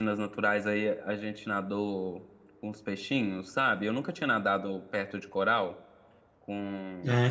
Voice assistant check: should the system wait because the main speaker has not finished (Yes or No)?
No